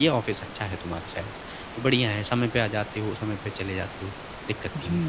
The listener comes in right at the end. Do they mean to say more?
Yes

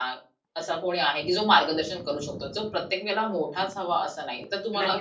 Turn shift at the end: Yes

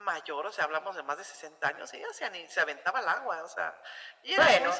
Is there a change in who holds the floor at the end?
No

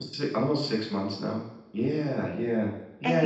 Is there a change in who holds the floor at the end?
Yes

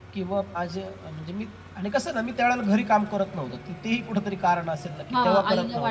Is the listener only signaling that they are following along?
No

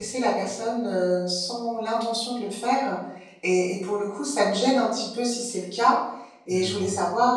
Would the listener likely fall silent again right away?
Yes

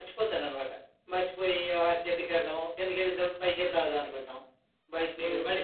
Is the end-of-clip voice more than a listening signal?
No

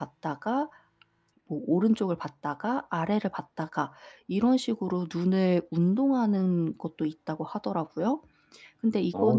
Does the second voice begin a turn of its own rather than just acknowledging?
No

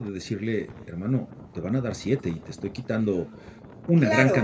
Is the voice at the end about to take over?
Yes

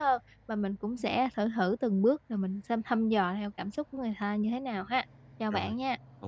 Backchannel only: No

